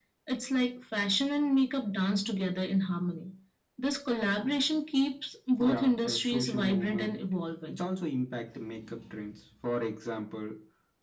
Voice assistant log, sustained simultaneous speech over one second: present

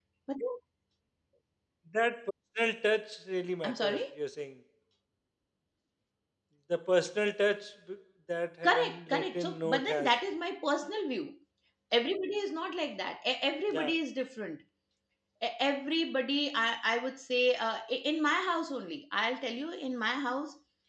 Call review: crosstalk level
present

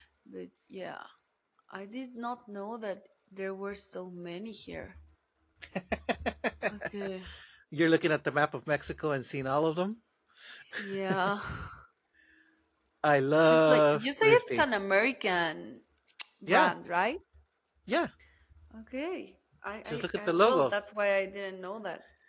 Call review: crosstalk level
present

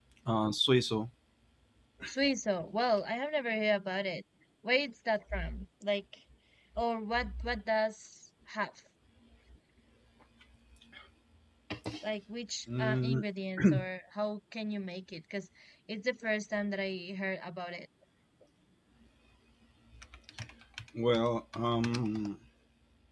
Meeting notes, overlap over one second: none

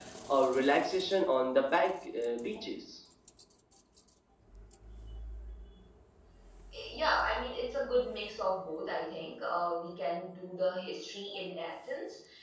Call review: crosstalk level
none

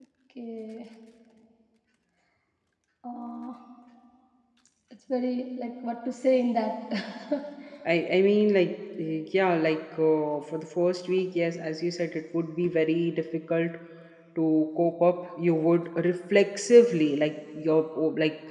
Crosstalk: none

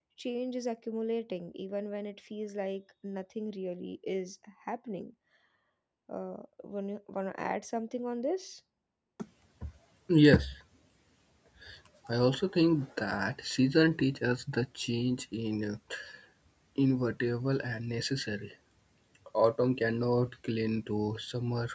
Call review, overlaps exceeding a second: none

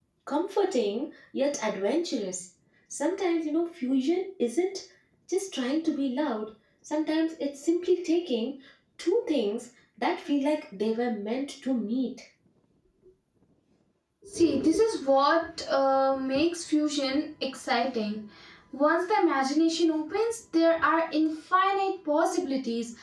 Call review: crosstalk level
none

